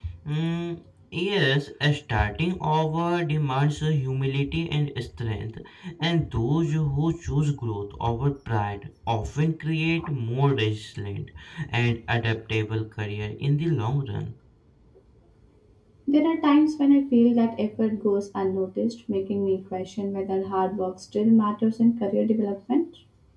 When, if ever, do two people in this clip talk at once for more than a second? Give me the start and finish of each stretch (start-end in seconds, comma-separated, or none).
none